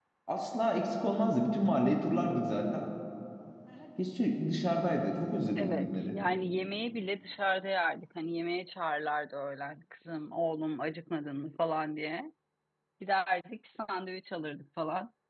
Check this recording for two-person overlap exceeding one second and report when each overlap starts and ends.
none

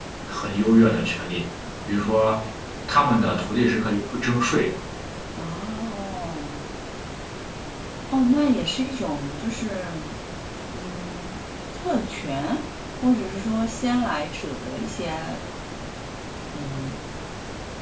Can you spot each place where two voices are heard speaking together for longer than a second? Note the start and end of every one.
none

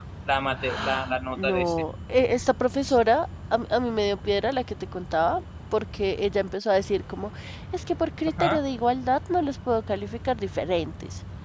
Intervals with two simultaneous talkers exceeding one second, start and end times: none

